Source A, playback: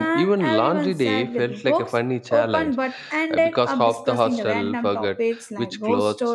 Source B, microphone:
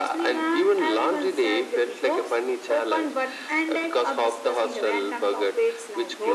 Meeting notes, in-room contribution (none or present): none